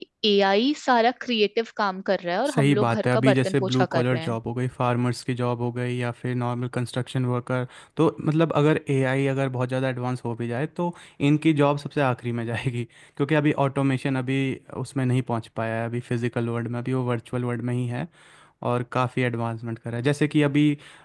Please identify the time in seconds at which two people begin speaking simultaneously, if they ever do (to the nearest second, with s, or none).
2 s